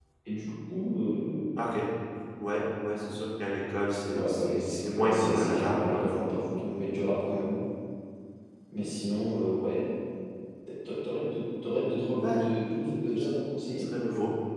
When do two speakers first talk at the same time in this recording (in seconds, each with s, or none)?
4.1 s